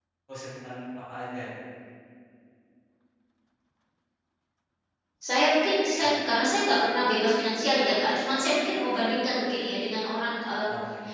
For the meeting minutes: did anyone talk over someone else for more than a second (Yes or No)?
No